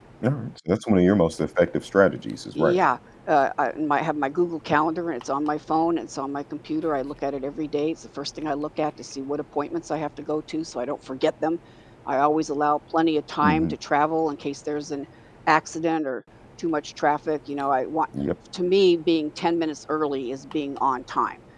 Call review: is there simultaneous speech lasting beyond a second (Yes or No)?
No